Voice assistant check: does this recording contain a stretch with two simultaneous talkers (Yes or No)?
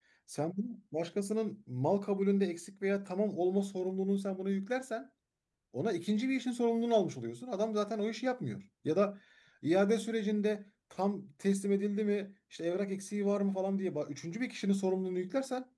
No